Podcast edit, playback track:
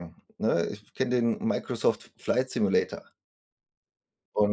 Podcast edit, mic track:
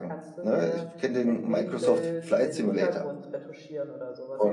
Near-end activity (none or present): present